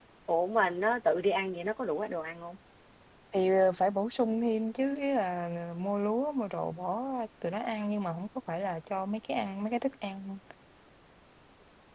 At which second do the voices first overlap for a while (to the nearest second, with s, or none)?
none